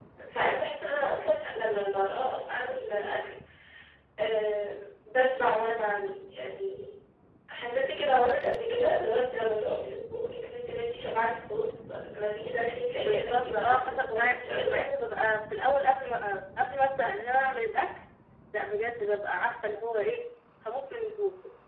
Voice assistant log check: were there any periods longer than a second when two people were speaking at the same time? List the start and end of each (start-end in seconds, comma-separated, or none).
12.9-14.8